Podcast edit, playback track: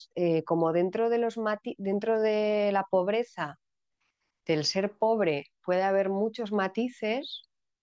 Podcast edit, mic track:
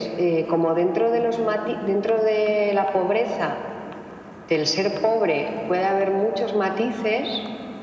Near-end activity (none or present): none